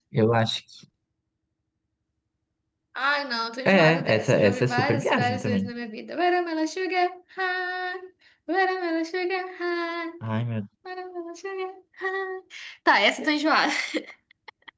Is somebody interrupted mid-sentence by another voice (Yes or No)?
Yes